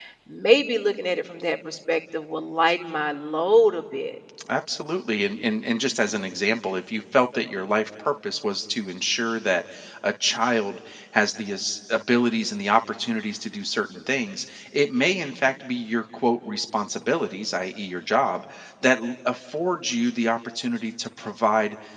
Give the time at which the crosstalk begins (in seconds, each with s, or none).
none